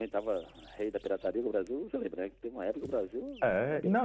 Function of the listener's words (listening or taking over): taking over